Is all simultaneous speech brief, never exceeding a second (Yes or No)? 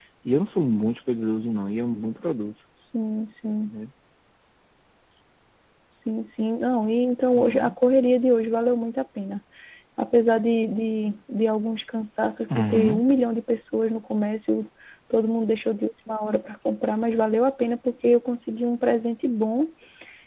Yes